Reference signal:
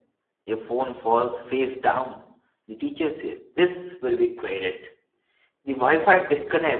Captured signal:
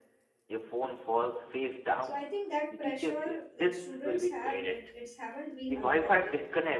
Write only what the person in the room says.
So I think that pressure that students have it it's haven't been unlocked yet.

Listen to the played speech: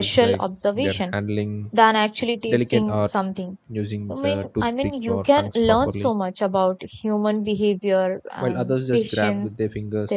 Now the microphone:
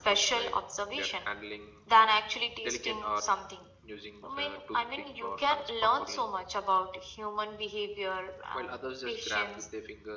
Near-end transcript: none

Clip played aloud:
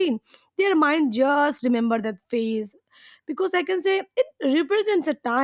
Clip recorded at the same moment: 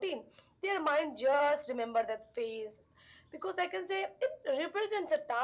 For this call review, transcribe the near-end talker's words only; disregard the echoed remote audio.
none

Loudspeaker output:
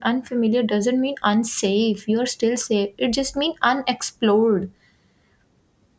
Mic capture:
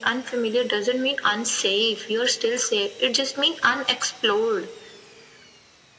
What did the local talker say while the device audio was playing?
none

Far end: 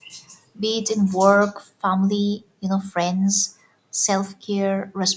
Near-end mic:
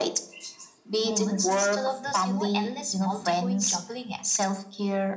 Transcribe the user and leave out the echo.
moments instead of this you know endless multi-going juggling act

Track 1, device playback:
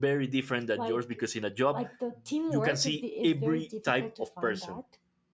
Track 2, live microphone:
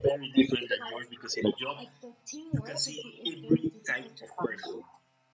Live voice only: none

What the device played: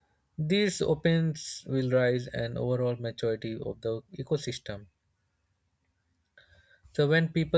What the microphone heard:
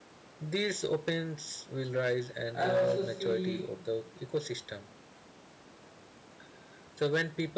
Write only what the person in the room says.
I also see

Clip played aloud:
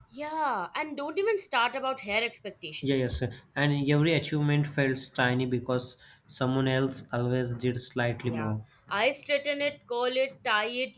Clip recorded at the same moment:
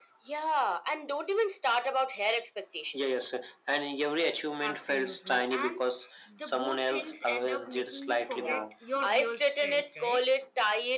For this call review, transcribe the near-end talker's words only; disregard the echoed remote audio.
Absolutely. And the both things end up making you forget your real strengths, right?

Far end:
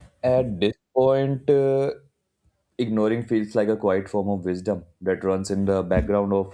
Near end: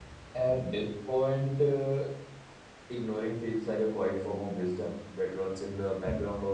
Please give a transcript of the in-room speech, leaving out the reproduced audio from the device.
none

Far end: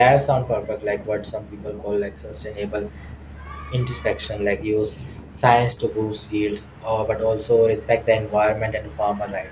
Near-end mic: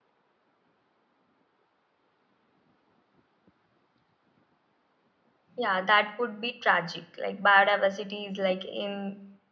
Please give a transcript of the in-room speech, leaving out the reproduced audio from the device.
Yeah, that would be tragic. Like biodiversity is like in

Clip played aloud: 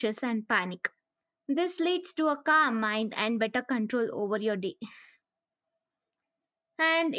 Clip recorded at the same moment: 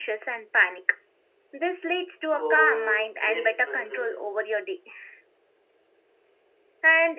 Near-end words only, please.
uh, great success

